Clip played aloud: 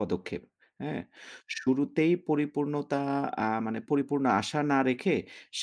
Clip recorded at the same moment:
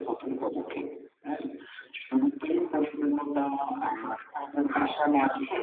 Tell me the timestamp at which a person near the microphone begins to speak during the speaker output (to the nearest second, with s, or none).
none